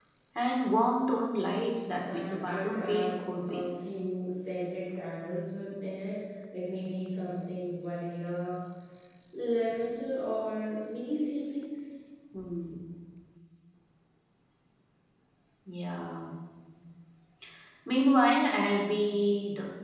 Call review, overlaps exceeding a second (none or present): present